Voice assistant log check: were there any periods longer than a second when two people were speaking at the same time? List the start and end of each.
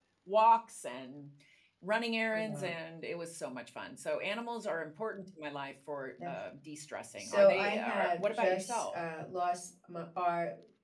7.2-8.9

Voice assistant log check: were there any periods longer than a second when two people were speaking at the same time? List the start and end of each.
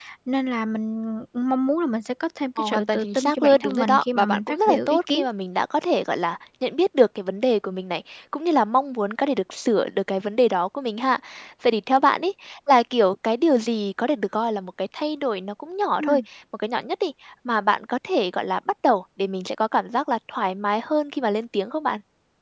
2.6-5.2

